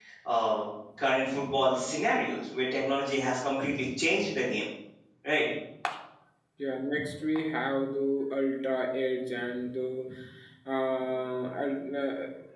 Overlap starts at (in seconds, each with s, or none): none